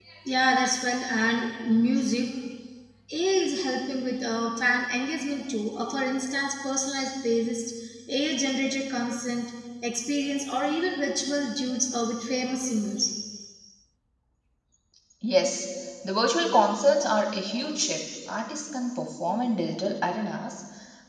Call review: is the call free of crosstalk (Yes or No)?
Yes